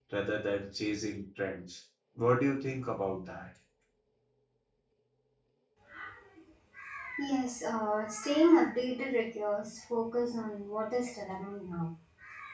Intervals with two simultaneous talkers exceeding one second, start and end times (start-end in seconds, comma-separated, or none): none